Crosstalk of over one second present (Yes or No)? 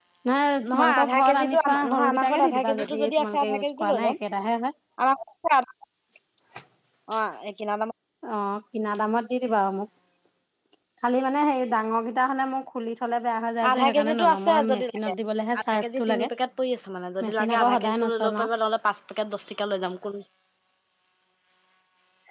Yes